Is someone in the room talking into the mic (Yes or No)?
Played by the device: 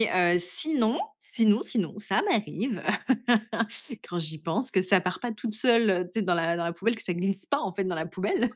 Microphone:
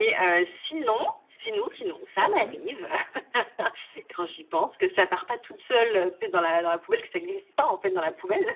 Yes